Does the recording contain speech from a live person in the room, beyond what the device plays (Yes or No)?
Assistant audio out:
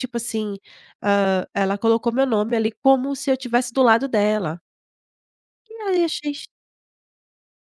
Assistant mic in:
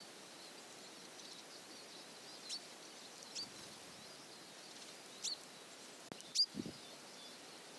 No